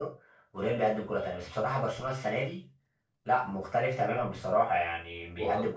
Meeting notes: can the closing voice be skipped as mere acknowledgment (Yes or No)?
Yes